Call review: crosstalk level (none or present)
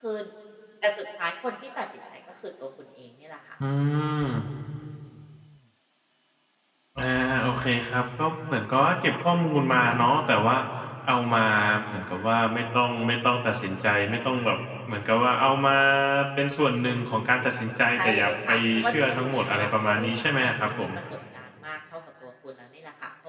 present